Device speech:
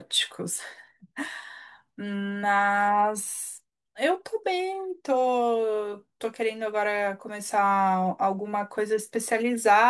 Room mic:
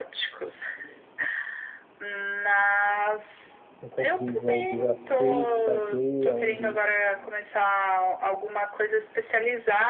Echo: present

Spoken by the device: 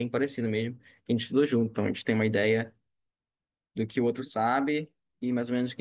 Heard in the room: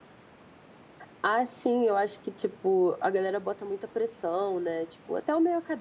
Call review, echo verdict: none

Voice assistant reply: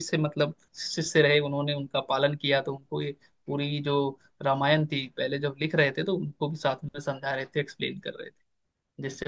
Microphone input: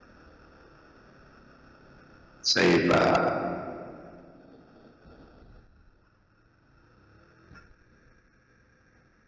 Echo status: none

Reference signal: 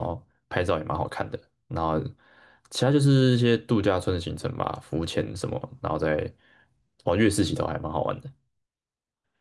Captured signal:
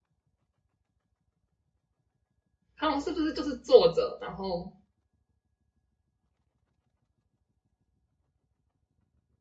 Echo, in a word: none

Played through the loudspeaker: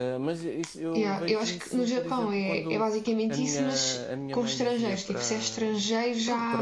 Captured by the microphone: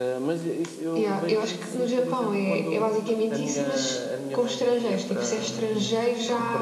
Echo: present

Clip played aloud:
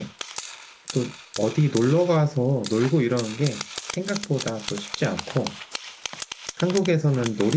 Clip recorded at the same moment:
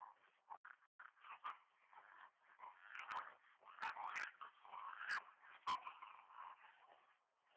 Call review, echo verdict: none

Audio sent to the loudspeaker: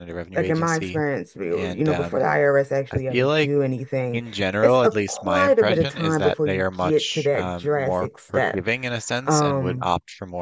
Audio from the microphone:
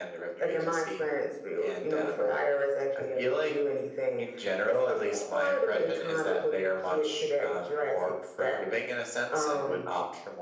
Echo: present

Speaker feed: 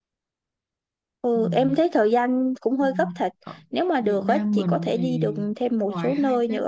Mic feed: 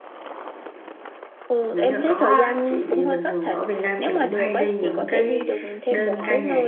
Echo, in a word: present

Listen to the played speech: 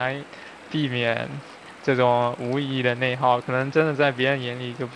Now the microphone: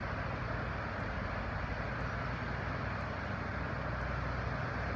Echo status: none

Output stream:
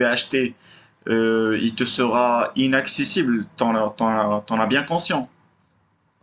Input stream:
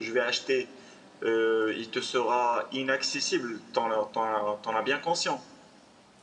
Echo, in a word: present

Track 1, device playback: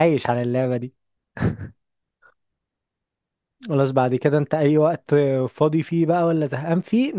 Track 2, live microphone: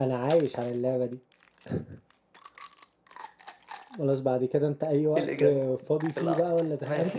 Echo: present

